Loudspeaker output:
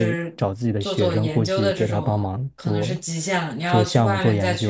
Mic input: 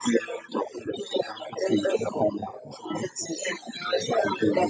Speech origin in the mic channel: echo only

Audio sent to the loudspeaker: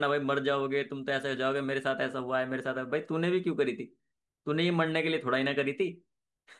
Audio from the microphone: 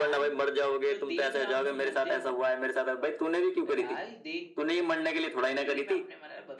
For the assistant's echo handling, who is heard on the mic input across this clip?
both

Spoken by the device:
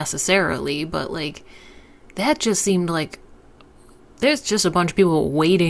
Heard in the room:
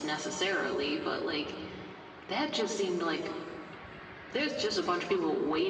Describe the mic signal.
echo only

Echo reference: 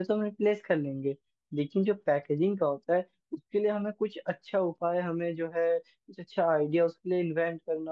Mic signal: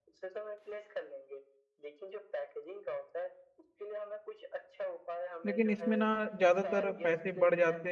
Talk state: both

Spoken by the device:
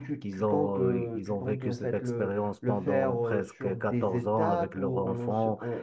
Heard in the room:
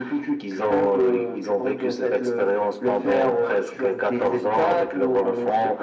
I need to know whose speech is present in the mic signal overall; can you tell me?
echo only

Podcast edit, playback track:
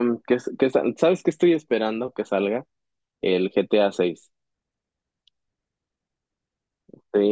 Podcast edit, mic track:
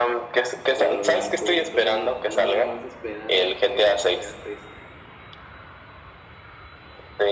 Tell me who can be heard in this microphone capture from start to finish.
both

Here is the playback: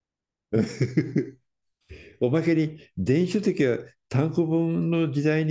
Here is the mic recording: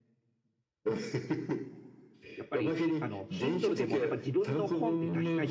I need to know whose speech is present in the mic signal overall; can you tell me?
both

